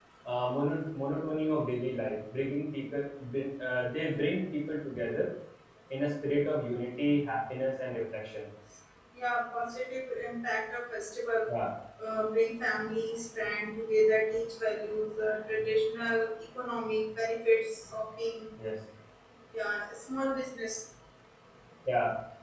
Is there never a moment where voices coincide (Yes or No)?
Yes